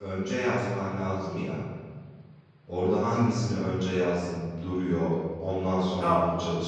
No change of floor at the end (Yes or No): No